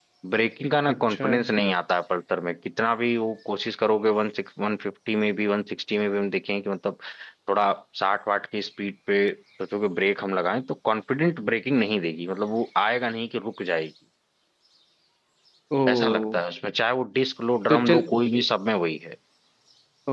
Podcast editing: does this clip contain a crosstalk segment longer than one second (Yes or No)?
No